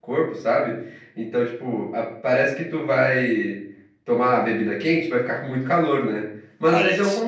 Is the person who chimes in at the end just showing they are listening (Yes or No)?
Yes